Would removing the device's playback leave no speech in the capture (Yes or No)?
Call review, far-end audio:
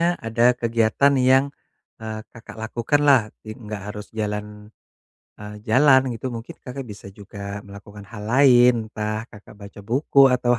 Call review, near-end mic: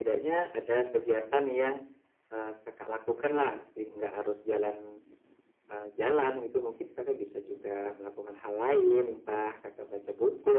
Yes